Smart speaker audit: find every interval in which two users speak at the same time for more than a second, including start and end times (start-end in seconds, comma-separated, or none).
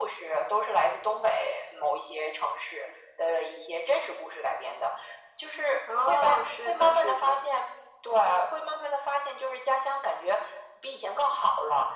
6.1-7.4